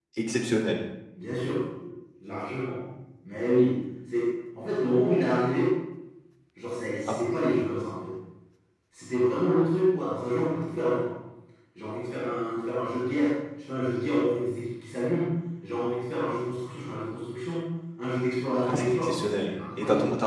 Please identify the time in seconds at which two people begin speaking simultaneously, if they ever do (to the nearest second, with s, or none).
19 s